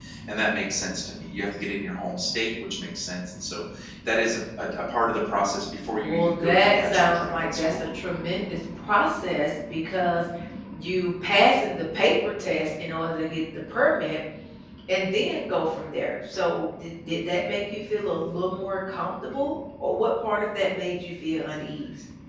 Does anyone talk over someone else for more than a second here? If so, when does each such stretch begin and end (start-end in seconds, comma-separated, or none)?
6.0-7.7